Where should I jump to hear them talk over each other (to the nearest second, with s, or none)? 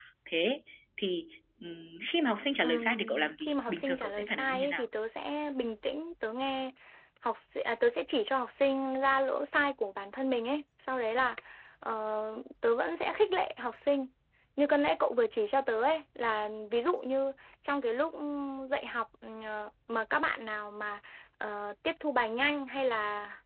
3 s